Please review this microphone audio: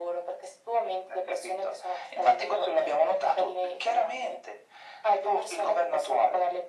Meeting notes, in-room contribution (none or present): none